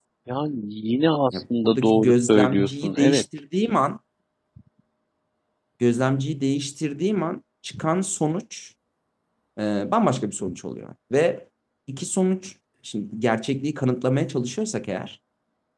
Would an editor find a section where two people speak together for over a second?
Yes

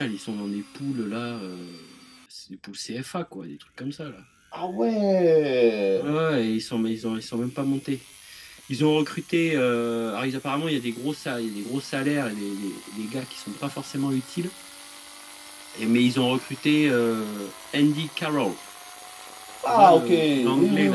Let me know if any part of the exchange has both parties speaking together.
Yes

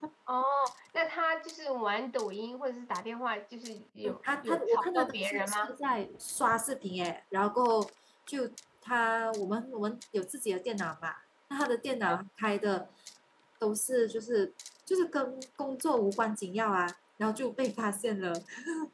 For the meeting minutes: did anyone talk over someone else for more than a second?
Yes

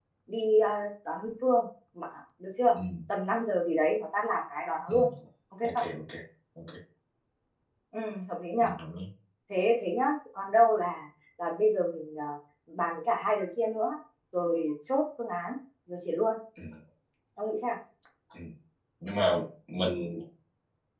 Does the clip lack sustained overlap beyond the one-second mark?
Yes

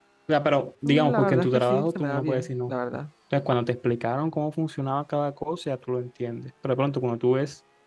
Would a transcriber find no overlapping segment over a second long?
No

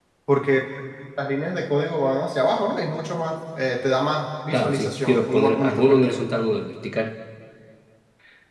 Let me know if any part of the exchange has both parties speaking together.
Yes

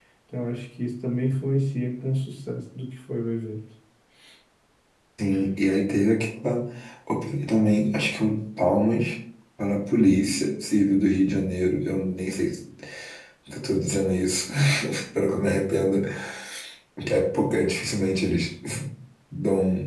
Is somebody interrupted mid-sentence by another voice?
No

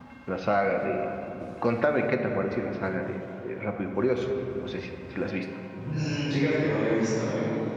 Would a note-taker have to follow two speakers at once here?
No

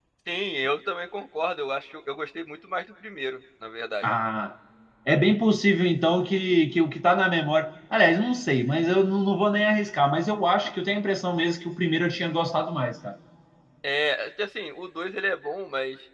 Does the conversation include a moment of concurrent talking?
No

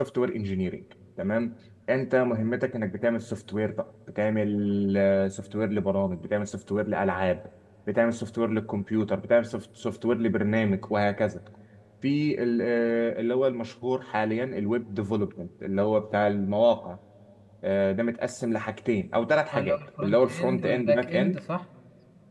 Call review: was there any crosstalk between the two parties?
Yes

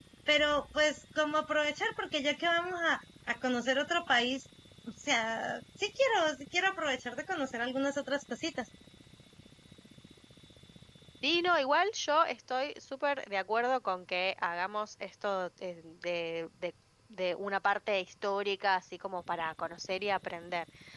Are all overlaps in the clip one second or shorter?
Yes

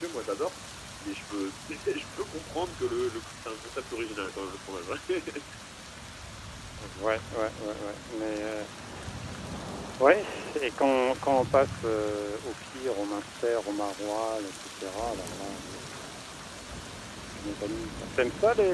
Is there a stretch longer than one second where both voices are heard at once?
No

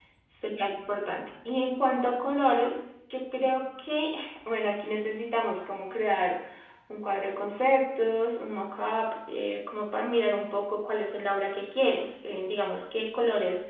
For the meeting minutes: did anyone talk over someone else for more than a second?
No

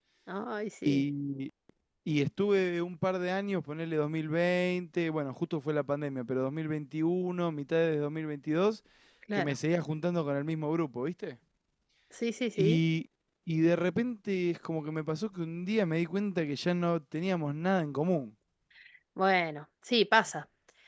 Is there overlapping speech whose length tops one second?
No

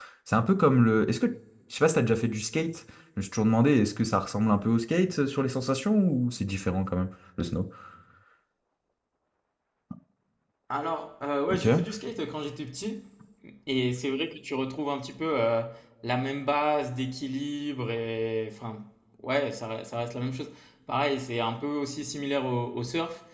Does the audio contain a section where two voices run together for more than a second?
No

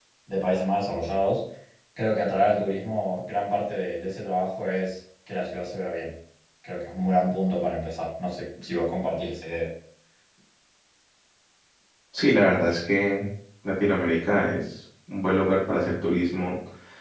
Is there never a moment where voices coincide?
Yes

